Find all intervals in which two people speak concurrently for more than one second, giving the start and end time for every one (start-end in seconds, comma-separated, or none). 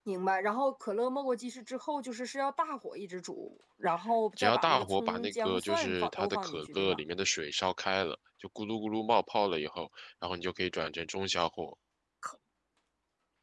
4.4-7.0